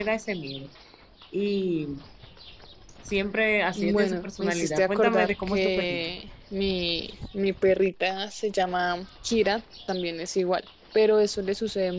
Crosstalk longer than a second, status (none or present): present